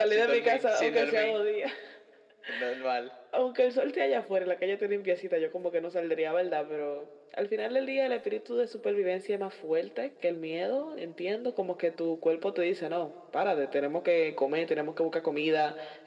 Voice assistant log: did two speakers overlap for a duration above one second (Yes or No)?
Yes